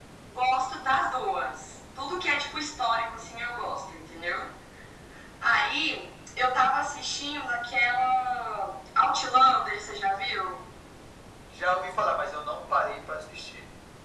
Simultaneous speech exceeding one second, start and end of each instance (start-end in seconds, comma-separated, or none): none